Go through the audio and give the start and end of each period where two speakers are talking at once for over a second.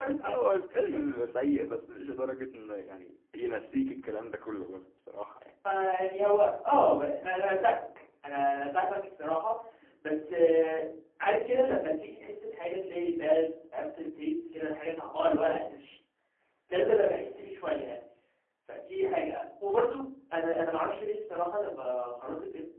none

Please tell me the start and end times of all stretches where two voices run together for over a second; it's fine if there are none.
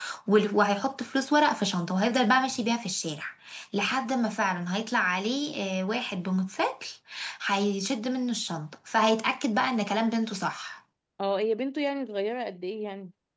none

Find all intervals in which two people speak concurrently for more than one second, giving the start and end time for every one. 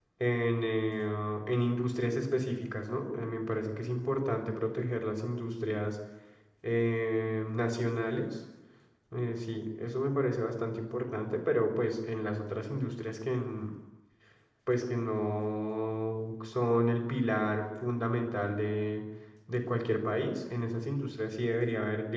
none

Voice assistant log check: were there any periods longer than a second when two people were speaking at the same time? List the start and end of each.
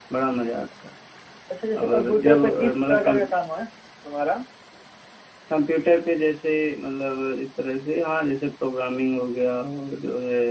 1.8-3.2

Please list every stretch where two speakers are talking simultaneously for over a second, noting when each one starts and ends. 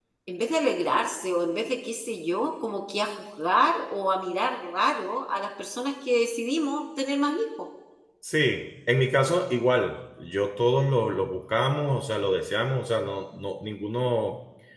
none

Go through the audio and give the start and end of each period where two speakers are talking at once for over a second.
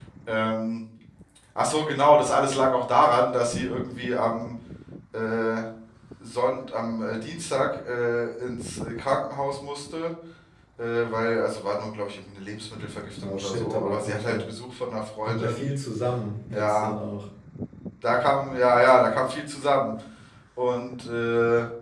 13.2-14.5

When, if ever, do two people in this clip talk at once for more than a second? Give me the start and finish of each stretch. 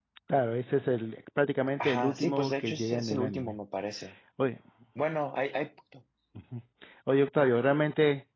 1.8-3.6

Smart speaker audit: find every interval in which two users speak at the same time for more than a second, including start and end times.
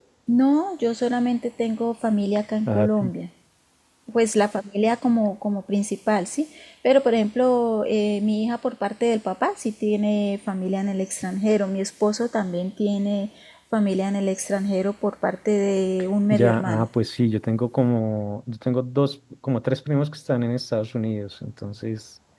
none

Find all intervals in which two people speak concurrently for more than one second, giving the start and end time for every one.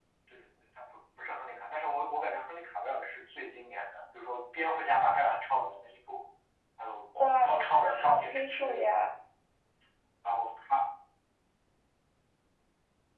7.4-8.8

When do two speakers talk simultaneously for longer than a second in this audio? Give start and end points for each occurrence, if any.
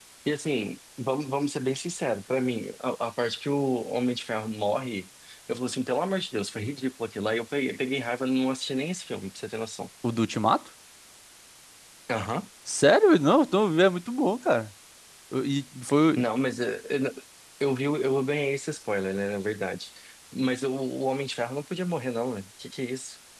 none

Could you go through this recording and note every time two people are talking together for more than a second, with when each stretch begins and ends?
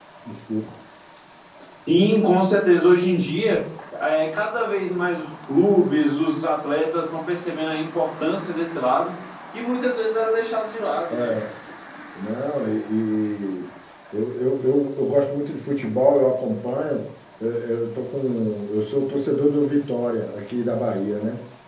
none

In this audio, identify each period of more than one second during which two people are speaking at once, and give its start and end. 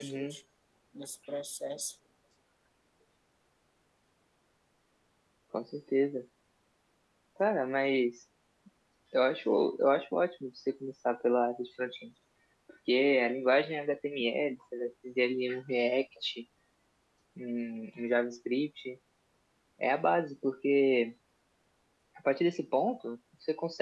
none

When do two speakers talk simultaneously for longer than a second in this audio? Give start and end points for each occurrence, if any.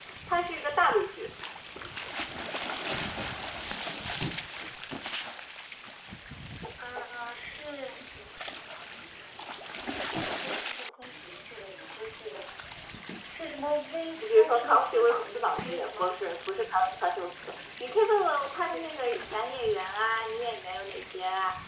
14.2-16.1

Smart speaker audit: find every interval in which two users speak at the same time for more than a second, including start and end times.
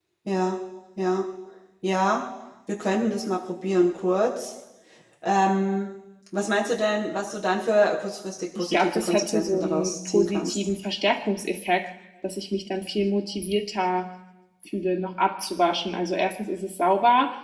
8.6-10.6

